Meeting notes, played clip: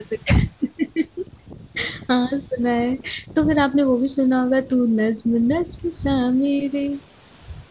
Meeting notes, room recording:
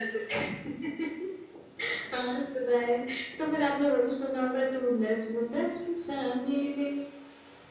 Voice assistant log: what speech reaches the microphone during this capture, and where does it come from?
echo only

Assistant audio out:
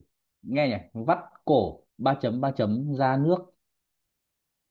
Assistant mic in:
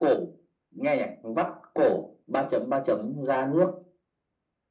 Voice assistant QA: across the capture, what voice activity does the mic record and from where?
echo only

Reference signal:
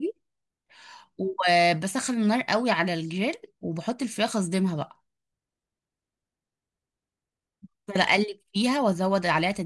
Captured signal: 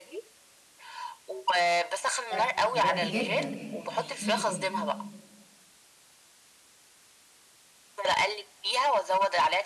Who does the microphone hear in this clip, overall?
both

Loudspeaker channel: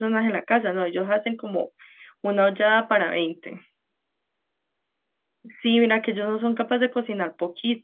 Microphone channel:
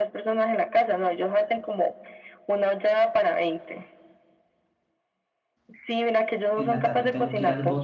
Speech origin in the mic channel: both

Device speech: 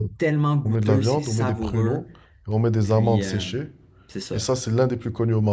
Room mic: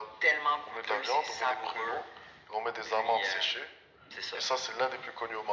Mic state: echo only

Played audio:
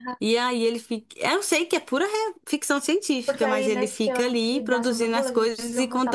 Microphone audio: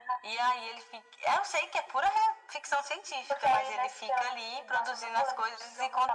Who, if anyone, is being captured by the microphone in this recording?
echo only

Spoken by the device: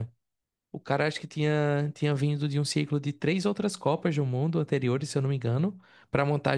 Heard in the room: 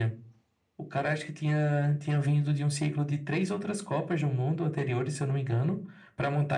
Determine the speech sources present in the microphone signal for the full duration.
echo only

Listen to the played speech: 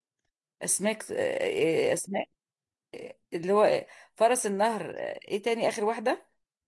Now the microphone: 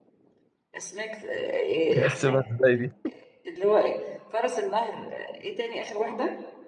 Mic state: both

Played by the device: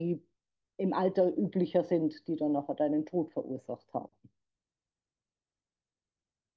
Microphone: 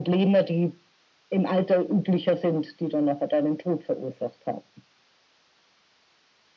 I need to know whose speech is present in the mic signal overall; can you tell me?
echo only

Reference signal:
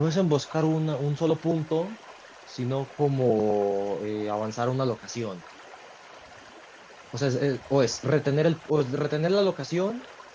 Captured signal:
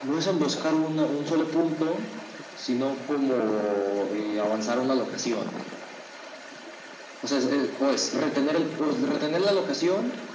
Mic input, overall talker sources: echo only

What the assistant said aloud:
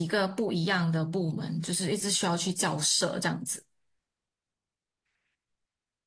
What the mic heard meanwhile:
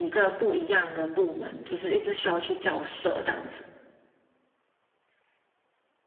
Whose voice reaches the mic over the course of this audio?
echo only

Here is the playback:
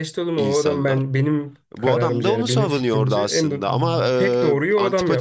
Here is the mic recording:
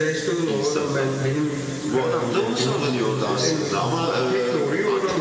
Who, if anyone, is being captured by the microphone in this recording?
echo only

